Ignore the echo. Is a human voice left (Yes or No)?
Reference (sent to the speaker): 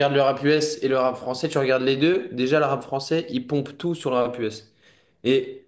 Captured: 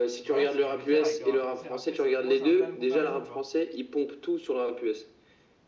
Yes